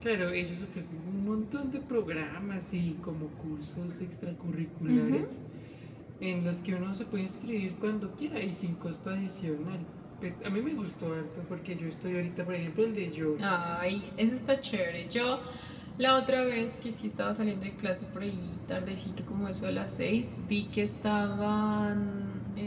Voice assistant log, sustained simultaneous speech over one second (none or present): none